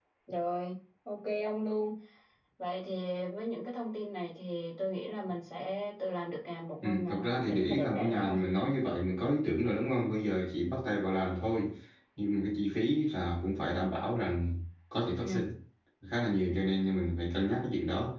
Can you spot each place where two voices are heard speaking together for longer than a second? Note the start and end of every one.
6.8-8.5

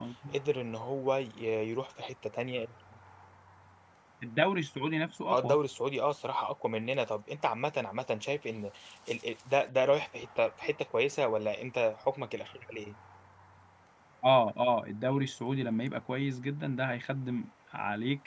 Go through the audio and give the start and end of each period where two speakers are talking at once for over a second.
none

